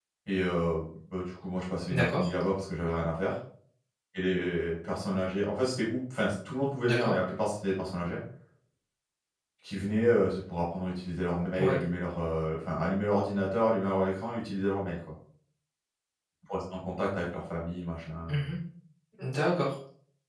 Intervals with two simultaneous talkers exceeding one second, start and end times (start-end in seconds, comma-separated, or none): none